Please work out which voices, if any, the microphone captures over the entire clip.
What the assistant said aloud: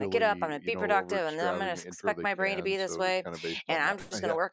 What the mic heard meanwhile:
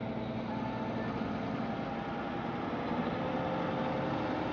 neither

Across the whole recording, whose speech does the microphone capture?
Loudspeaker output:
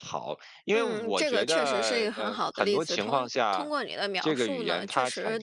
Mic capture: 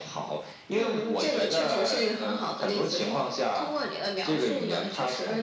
echo only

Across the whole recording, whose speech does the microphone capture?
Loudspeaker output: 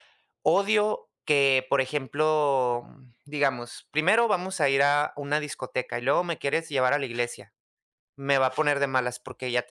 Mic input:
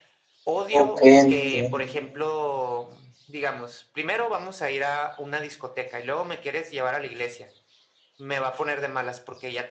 both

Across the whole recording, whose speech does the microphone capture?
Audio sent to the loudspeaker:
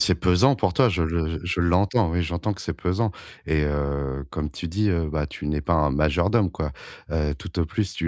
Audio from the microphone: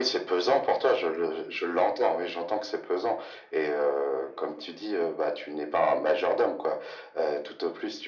echo only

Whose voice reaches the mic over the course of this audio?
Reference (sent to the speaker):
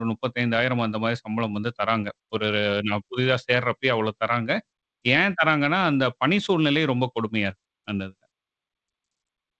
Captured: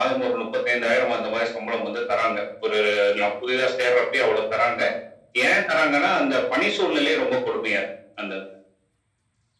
echo only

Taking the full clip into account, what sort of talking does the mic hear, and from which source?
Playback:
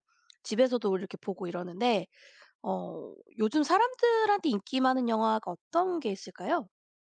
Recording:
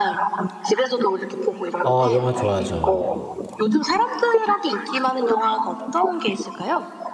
both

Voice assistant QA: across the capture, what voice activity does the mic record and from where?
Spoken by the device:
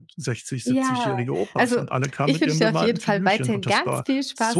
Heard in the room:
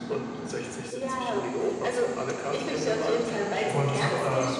both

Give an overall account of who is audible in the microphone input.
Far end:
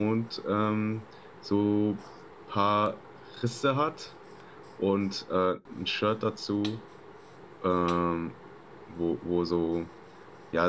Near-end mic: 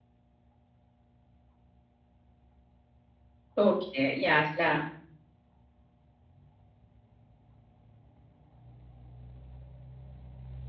user only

